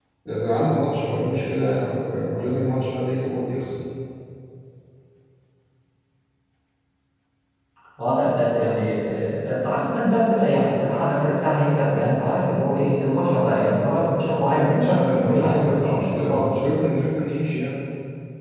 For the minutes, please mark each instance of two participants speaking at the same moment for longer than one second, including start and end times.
14.5-16.5

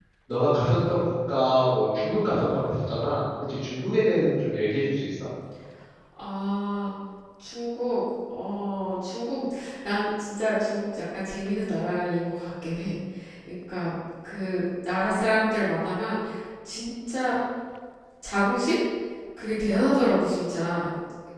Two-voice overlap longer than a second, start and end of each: none

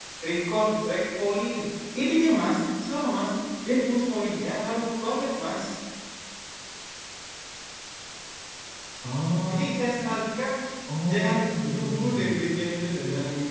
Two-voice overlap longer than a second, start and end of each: 11.1-12.4

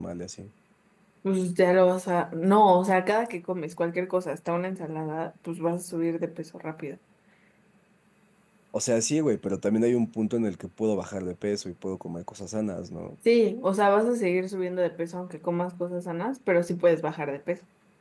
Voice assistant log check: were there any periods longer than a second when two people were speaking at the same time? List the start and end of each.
none

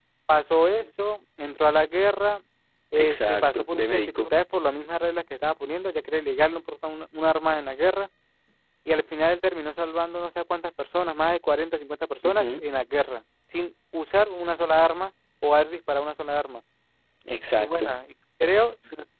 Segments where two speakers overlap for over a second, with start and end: 3.0-4.3

